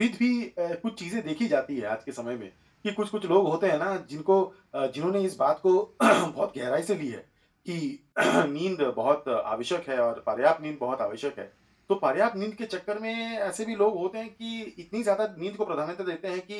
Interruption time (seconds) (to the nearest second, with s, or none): none